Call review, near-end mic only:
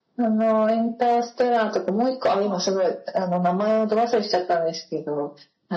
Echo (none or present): present